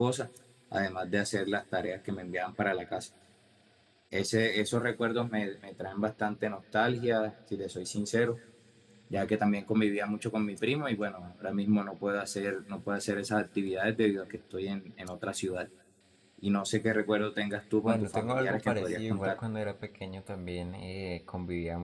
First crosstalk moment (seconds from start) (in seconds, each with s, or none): 17.8 s